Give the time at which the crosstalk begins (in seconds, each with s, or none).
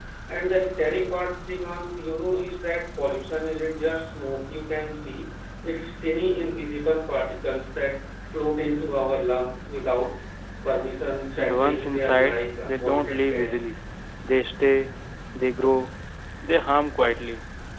11.4 s